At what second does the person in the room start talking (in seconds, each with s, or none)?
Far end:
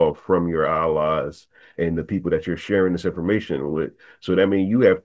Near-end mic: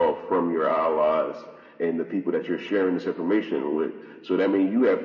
none